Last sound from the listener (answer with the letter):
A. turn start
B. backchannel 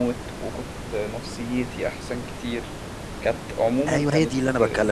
A